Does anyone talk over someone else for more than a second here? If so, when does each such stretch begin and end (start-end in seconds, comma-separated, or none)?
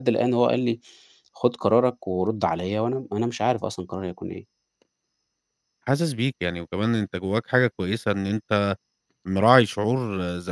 none